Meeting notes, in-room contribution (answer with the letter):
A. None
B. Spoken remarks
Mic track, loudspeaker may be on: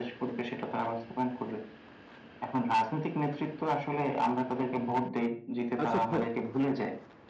B